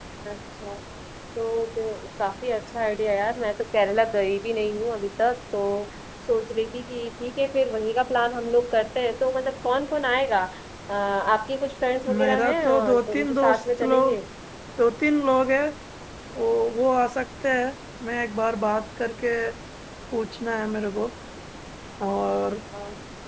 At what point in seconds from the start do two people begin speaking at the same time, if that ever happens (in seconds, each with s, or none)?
12.1 s